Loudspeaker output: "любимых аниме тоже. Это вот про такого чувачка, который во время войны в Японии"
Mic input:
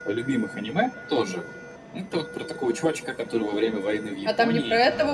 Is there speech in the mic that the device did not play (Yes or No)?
Yes